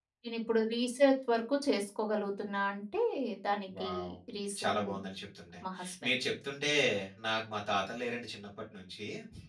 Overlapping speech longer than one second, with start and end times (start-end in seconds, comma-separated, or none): none